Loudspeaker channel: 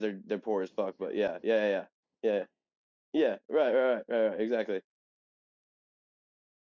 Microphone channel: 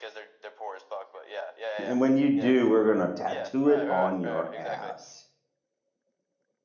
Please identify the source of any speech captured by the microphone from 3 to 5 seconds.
both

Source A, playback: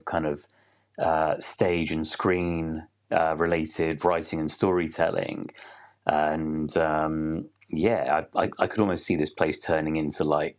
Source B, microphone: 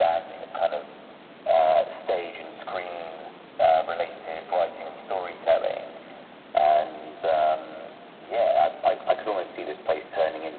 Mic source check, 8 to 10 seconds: echo only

